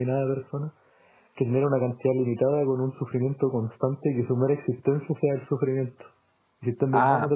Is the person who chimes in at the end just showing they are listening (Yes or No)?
Yes